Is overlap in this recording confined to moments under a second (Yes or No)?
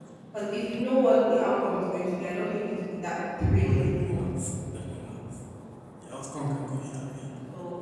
Yes